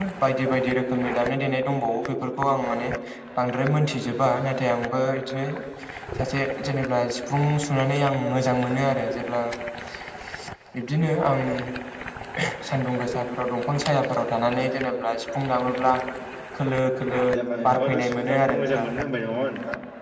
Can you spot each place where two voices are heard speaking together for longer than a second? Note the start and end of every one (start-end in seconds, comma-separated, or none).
17.7-18.9